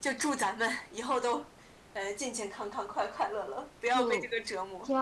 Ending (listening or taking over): taking over